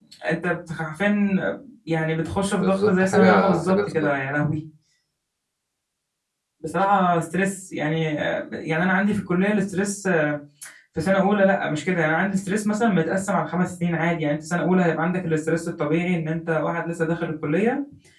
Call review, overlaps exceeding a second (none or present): present